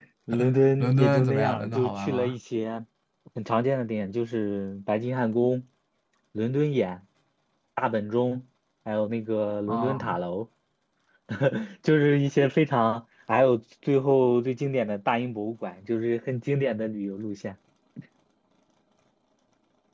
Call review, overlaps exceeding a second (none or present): present